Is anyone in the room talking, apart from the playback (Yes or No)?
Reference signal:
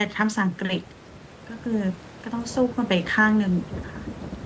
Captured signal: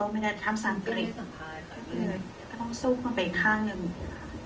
Yes